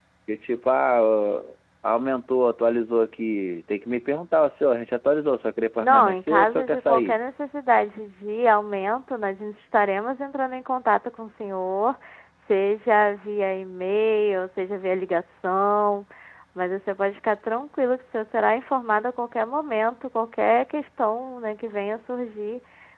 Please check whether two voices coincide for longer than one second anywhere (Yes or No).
Yes